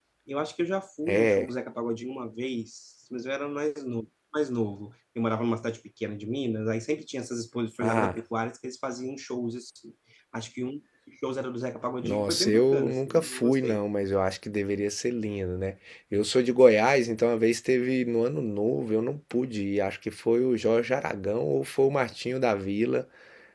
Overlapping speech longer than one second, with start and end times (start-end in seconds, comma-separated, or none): 12.0-13.8